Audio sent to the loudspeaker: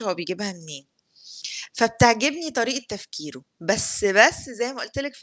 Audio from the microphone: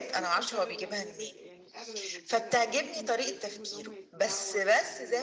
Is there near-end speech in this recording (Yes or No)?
Yes